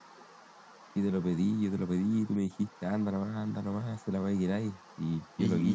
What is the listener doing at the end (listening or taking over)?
taking over